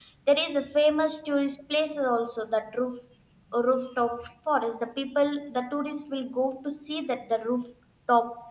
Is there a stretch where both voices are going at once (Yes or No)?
No